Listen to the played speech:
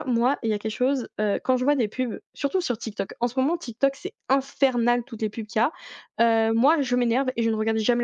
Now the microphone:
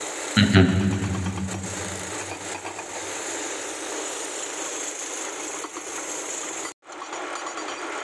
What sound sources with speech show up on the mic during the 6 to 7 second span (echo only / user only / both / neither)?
neither